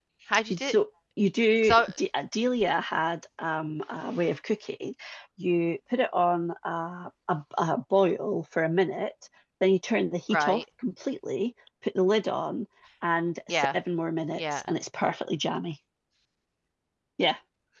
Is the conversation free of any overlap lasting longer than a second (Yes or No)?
Yes